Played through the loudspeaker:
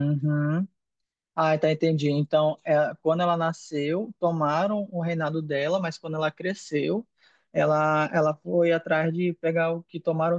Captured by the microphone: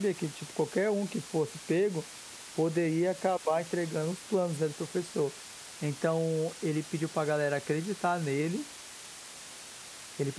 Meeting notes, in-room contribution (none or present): present